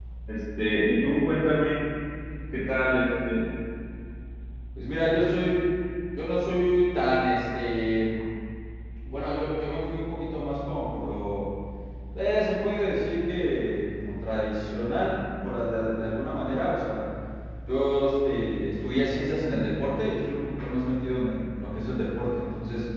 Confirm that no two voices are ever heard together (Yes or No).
Yes